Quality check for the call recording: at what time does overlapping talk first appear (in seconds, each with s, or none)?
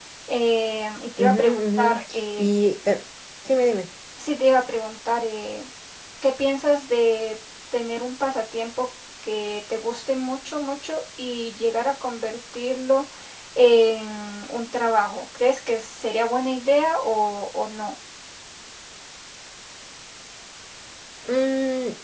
1.2 s